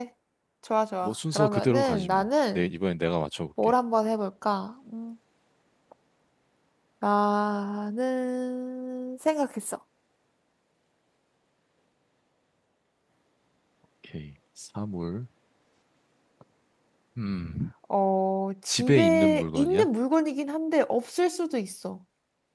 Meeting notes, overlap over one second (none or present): present